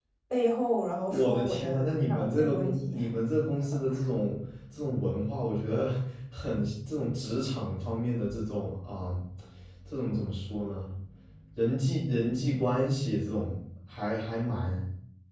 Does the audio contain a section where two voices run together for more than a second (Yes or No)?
Yes